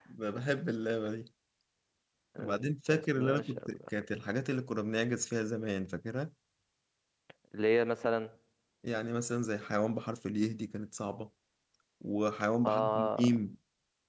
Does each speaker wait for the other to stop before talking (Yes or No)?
No